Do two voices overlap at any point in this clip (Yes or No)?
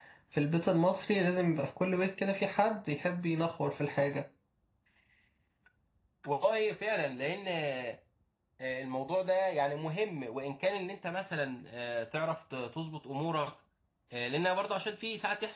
No